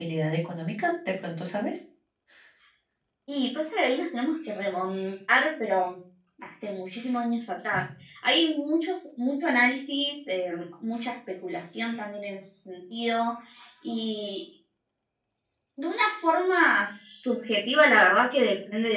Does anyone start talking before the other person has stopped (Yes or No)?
No